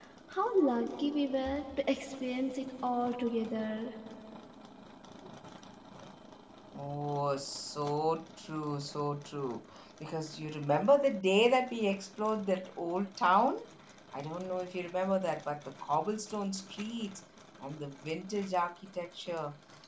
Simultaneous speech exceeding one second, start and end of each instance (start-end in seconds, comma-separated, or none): none